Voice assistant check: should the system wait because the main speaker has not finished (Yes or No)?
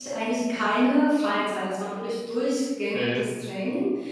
Yes